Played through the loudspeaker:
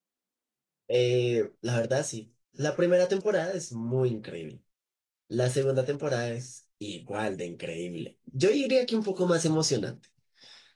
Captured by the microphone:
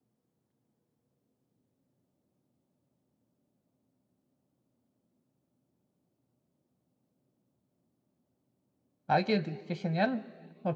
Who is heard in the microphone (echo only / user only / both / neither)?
user only